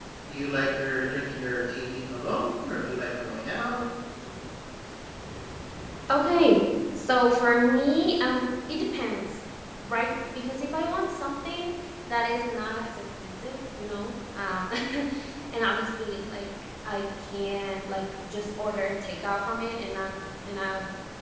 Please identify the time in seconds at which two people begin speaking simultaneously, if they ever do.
none

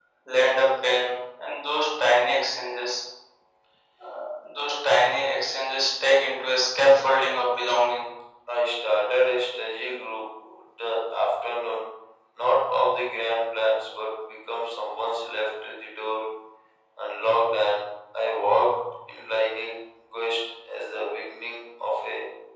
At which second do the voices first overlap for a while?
none

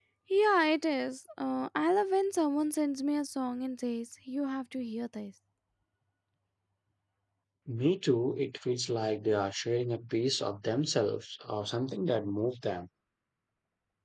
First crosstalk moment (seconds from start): none

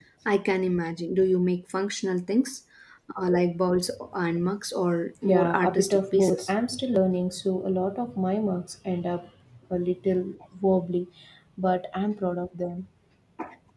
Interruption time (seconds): 5.2 s

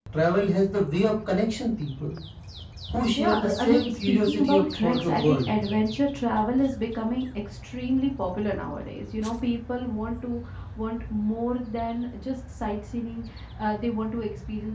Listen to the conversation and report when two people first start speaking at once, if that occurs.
3.2 s

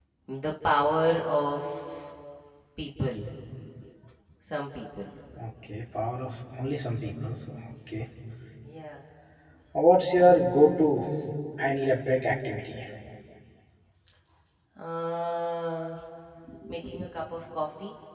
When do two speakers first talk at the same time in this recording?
none

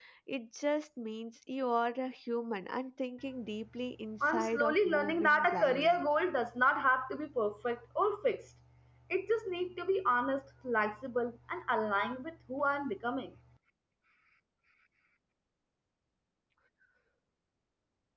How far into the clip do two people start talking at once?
4.2 s

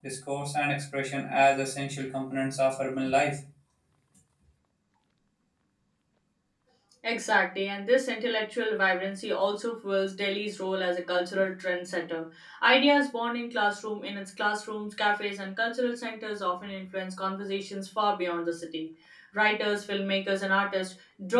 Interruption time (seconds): none

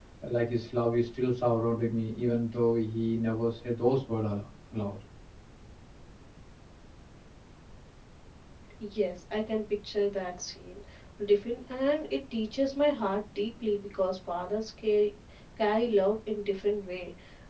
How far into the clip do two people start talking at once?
none

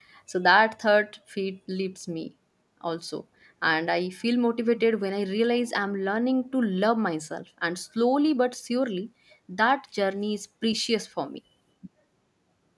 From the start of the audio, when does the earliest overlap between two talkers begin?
none

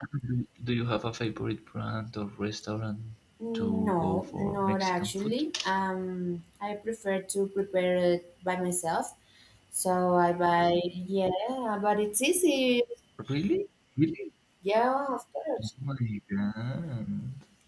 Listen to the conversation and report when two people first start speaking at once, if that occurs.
3.5 s

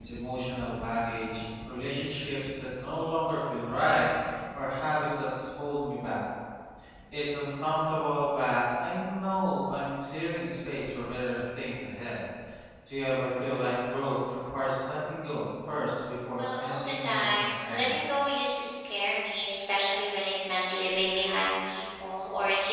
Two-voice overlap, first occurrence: 16.4 s

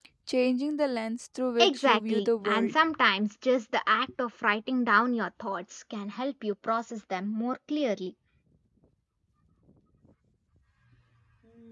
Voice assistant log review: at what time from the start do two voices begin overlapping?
1.6 s

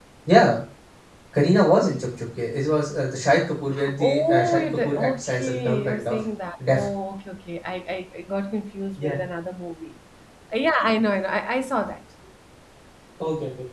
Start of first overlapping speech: 4.0 s

